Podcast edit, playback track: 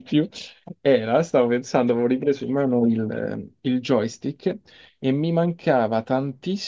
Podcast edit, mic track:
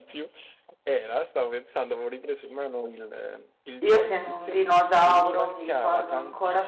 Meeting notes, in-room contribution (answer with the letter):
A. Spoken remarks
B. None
A